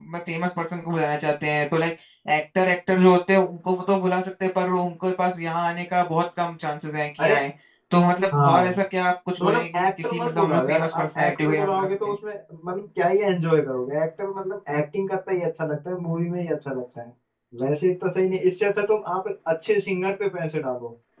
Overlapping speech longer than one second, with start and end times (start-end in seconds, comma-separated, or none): 9.4-12.1